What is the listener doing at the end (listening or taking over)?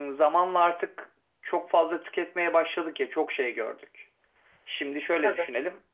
listening